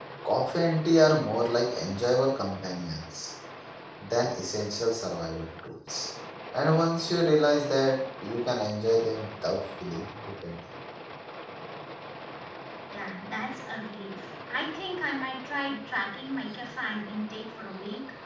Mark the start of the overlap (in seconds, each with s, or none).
none